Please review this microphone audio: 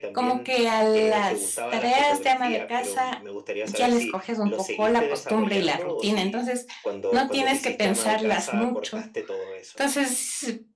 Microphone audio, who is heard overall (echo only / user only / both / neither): both